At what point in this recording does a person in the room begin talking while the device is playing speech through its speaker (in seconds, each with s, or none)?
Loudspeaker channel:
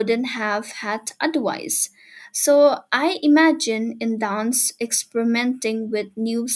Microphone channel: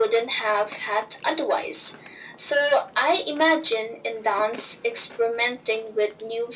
none